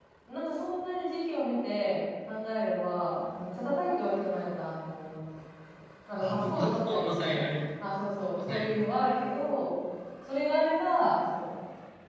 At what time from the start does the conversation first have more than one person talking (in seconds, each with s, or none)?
6.2 s